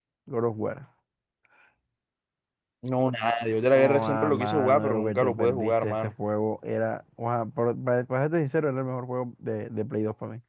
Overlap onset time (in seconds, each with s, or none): 3.7 s